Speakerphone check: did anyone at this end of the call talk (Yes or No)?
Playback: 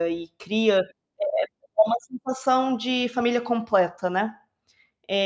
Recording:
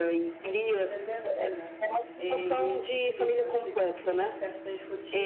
Yes